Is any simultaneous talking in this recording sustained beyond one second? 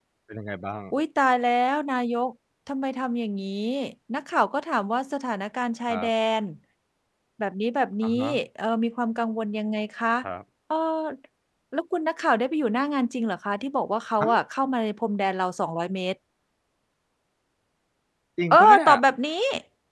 No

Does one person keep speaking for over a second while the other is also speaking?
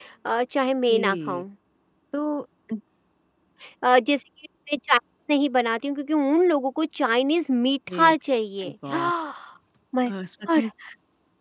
No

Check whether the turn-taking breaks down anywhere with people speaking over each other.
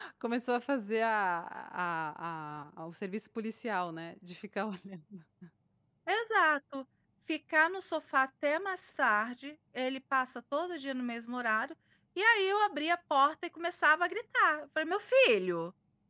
No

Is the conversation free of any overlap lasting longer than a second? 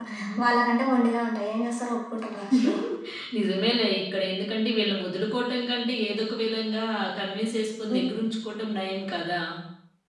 Yes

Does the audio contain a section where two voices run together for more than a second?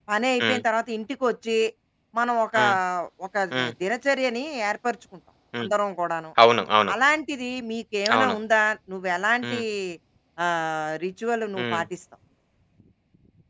No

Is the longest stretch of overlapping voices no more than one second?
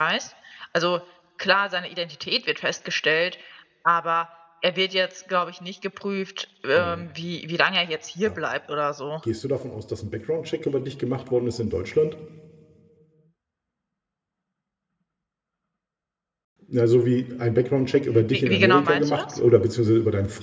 No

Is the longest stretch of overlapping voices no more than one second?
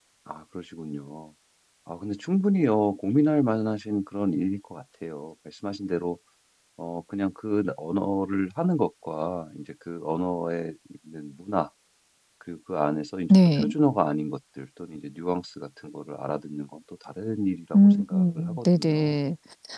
No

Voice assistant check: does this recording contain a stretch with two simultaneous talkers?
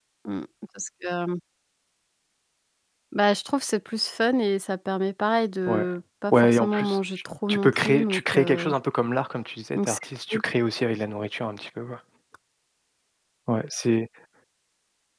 Yes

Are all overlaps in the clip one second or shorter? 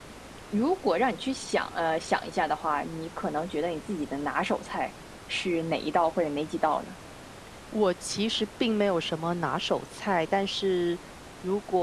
Yes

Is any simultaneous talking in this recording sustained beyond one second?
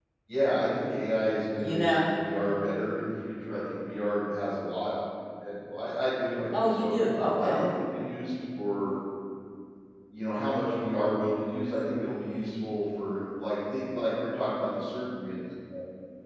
No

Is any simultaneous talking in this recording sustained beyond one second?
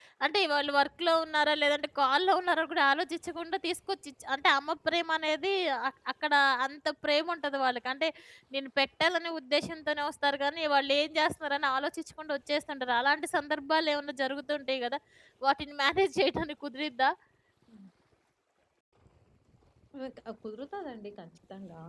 No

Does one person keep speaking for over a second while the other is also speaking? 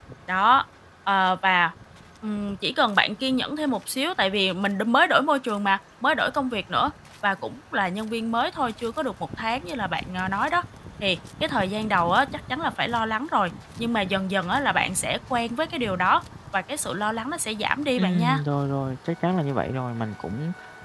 No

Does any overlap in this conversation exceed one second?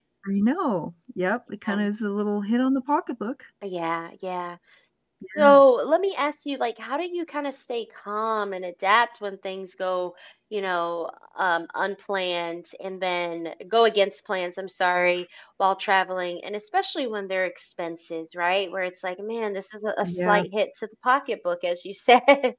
No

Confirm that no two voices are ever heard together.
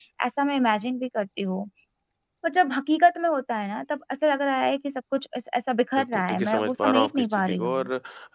No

